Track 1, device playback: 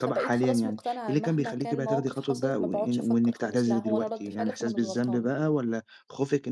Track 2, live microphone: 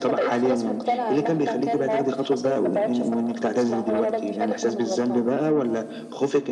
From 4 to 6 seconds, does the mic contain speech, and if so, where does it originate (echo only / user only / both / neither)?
echo only